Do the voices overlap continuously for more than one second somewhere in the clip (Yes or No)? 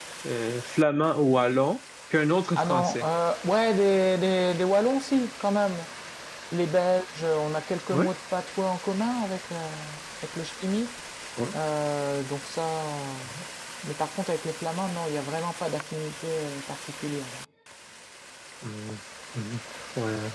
No